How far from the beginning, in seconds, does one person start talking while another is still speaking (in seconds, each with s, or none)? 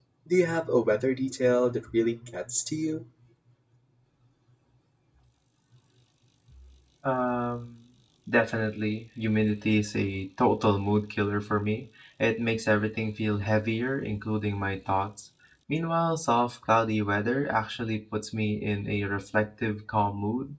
none